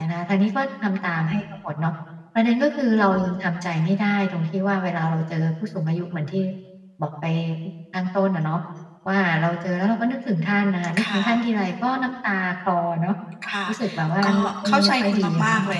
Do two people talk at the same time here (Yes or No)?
Yes